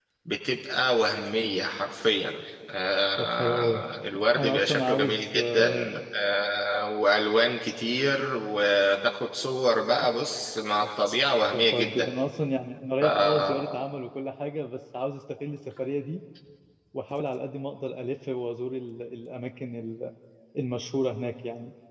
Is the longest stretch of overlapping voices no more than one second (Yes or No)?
No